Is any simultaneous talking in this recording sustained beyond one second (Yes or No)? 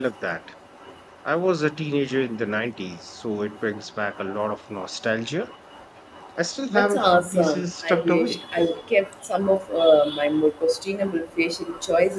Yes